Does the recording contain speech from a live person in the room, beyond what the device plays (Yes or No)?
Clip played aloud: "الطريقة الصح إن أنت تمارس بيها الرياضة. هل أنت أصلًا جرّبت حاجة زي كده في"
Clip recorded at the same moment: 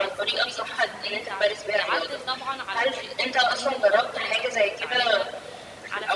Yes